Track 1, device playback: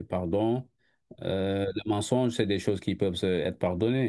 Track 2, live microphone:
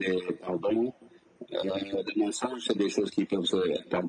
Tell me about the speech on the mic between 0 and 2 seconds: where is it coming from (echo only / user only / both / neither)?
echo only